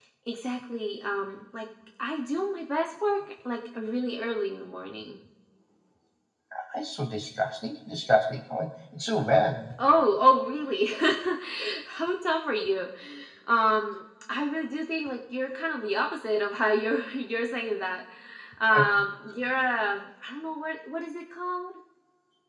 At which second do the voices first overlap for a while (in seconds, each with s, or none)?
none